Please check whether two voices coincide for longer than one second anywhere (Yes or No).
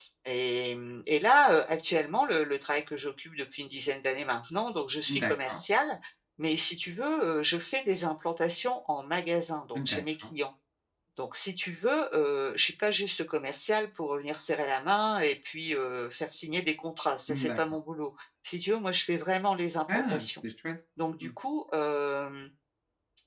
No